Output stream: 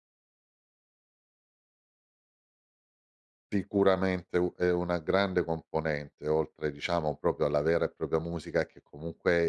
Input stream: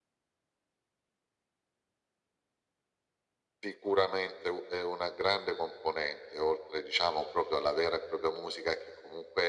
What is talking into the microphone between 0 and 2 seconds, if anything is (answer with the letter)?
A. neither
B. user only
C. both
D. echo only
A